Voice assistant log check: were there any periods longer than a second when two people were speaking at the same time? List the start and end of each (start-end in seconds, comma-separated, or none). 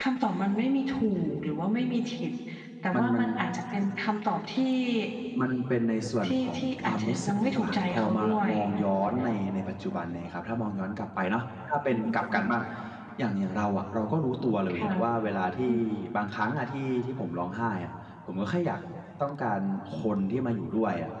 6.2-8.5